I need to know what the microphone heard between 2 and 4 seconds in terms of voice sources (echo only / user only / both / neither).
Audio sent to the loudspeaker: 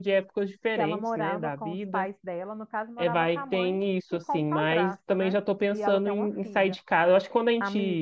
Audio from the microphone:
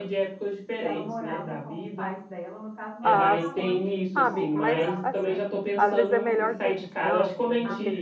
both